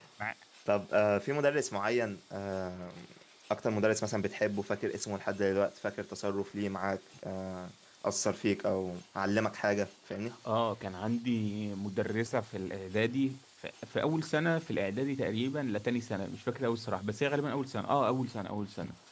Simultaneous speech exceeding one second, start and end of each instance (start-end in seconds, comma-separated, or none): none